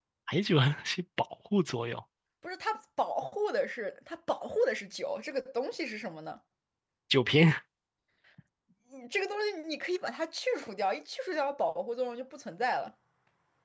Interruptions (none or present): none